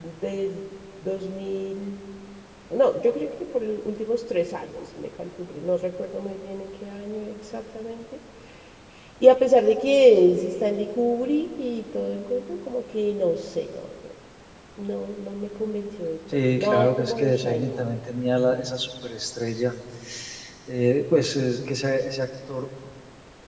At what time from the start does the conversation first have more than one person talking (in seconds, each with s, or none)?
16.3 s